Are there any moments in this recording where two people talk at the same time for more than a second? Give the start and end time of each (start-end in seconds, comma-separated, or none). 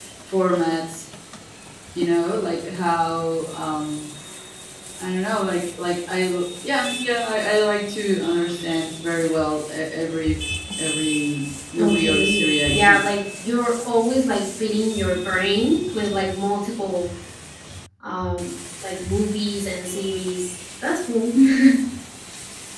11.8-13.0